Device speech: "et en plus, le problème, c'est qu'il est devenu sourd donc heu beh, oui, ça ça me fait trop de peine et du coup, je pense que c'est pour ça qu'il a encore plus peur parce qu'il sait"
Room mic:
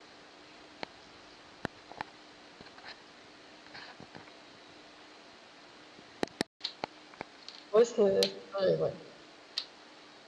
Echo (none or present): none